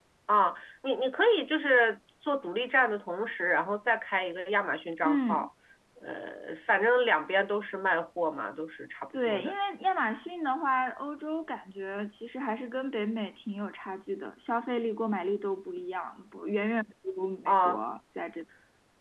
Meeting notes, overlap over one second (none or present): none